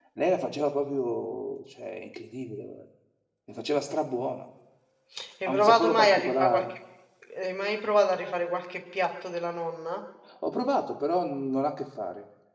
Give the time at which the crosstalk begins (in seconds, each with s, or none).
5.5 s